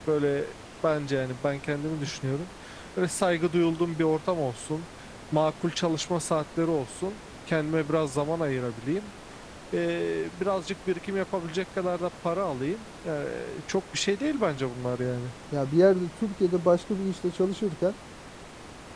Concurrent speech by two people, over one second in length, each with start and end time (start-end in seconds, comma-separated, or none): none